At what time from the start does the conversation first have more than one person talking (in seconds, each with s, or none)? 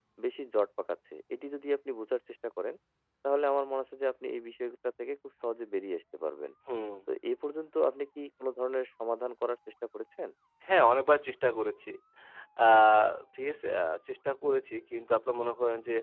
none